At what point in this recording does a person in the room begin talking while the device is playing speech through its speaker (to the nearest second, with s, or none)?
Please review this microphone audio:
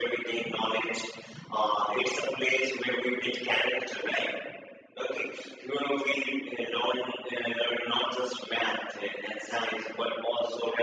none